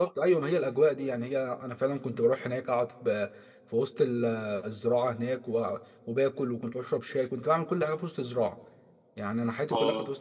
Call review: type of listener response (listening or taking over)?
listening